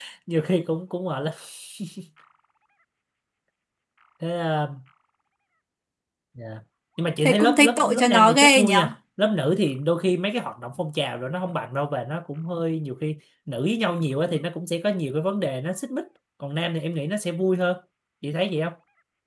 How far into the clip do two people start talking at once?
7.2 s

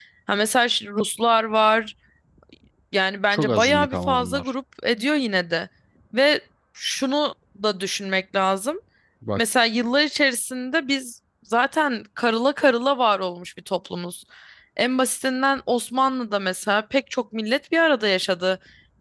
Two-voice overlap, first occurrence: 3.3 s

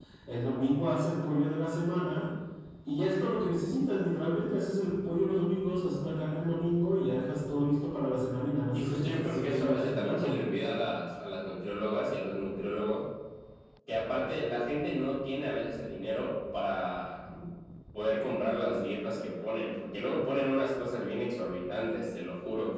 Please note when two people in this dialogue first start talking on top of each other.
8.7 s

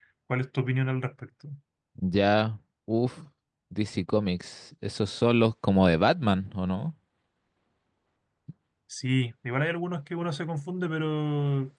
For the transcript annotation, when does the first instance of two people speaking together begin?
none

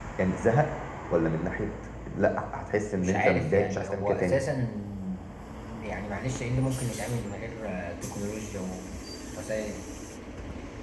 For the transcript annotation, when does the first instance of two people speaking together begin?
3.0 s

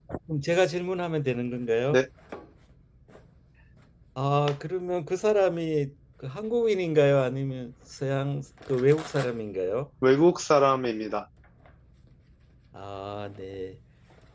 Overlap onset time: none

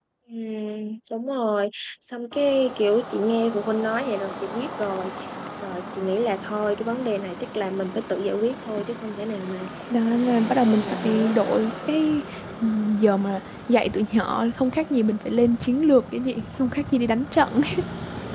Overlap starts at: 10.1 s

